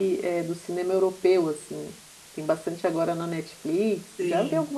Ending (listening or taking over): taking over